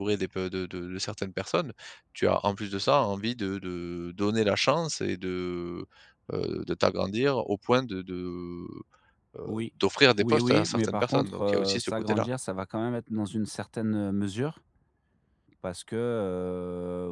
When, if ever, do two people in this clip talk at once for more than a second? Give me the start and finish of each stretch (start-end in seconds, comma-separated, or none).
10.2-12.3